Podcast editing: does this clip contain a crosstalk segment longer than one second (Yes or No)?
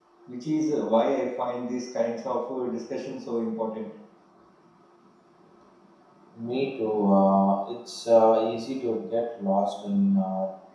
No